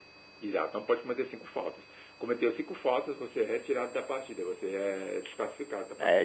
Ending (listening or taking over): taking over